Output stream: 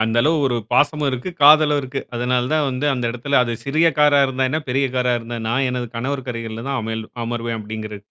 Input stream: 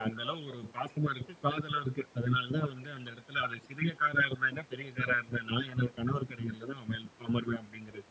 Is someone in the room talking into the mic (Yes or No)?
No